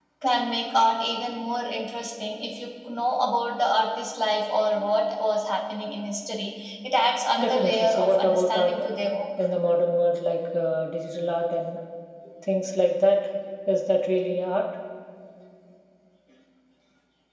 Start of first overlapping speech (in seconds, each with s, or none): 7.4 s